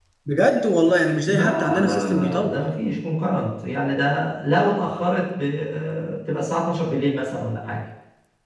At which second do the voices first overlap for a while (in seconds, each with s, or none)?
1.3 s